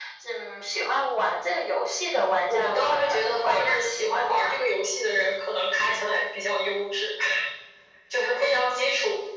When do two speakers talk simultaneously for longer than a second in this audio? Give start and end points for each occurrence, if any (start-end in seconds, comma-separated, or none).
2.5-4.6